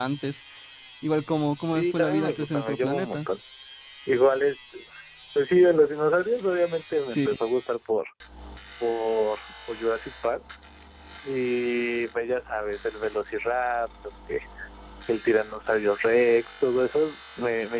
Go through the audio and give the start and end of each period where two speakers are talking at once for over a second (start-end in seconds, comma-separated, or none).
1.7-3.2